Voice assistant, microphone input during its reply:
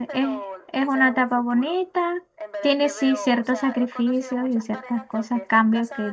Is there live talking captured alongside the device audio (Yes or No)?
Yes